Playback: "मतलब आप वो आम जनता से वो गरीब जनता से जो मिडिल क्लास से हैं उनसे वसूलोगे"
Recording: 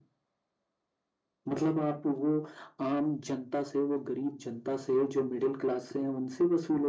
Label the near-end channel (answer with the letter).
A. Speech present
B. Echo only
B